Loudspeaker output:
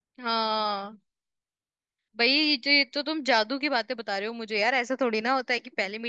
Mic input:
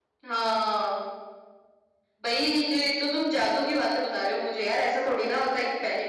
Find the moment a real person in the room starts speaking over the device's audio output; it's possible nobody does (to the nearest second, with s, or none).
none